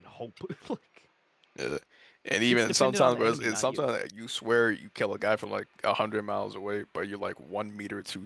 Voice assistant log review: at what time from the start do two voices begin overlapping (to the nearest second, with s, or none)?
2 s